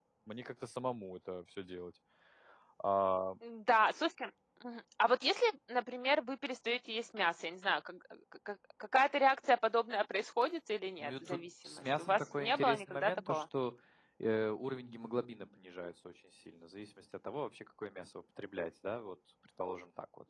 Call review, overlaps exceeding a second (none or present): present